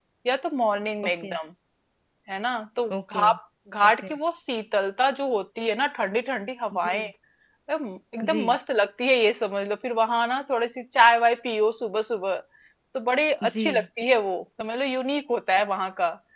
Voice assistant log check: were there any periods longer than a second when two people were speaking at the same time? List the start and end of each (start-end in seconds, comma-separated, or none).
none